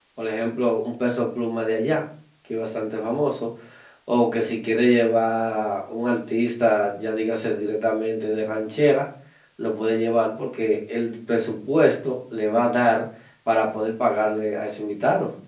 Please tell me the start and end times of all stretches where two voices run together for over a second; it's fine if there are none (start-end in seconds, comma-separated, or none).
none